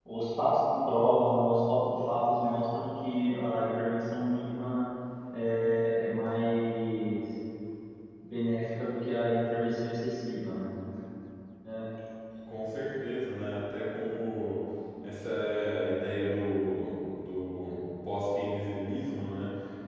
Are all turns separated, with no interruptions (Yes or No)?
Yes